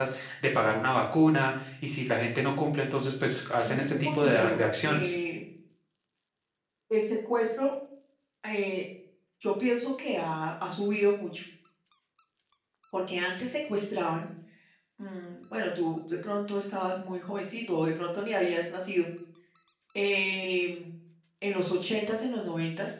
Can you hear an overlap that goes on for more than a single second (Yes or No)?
Yes